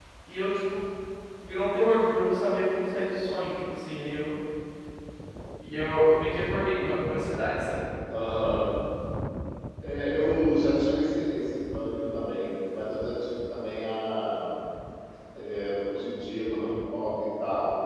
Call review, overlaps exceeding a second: none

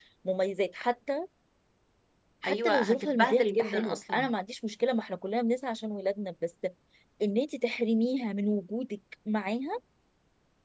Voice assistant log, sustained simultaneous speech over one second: present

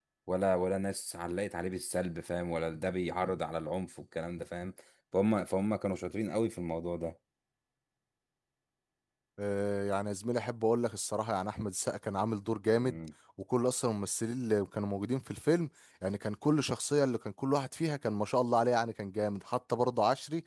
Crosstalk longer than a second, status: none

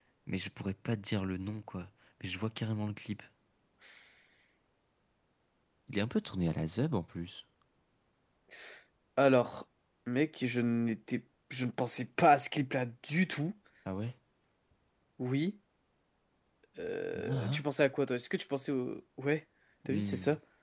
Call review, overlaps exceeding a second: none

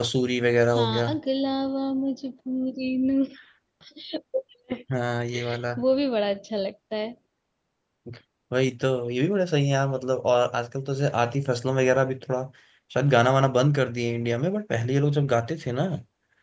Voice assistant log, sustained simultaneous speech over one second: none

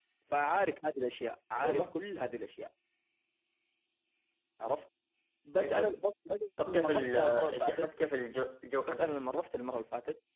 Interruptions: present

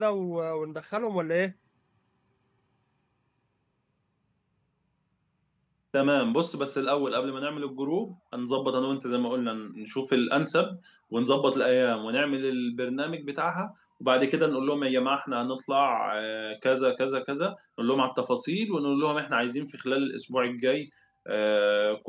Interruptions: none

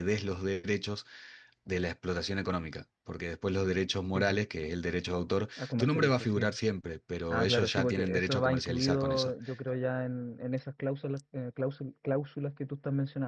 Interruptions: present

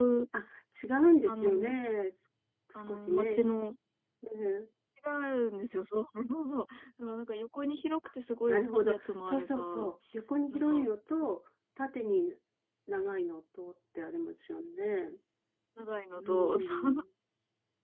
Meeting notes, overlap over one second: present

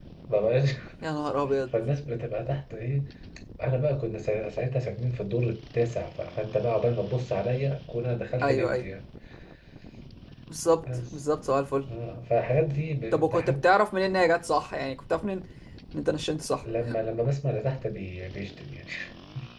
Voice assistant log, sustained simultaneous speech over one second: none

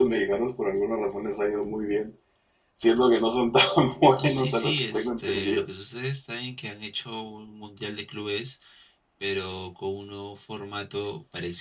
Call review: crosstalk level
present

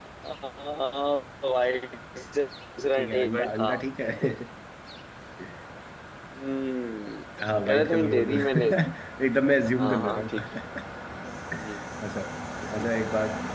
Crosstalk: present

